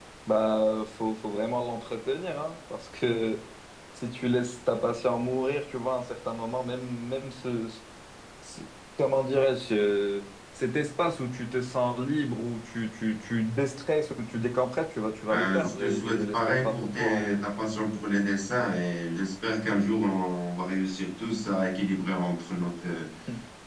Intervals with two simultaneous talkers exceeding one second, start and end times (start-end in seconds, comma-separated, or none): 15.3-17.4